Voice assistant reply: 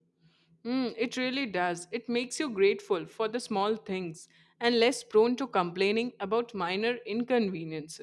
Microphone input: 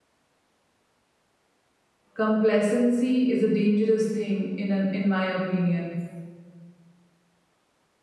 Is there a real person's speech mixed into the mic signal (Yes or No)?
Yes